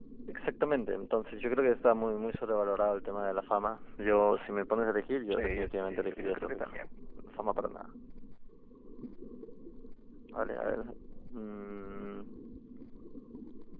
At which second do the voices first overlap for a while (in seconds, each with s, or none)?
5.3 s